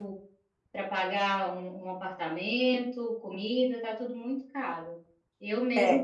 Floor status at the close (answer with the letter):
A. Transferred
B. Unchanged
B